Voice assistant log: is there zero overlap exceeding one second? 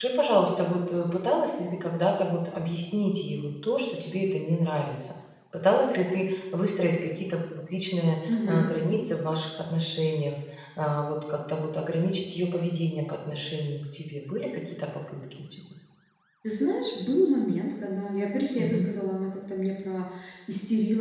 Yes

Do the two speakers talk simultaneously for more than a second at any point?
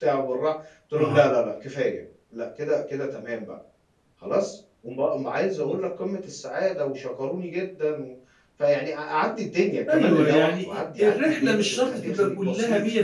Yes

